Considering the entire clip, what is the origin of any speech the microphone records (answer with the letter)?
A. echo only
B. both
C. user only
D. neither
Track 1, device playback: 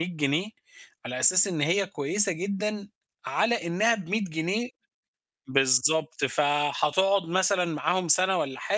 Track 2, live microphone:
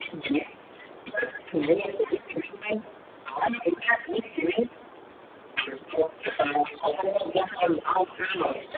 A